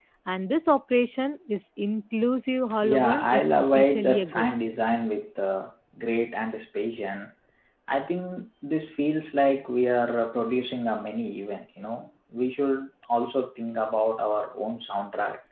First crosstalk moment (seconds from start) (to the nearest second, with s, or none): 3 s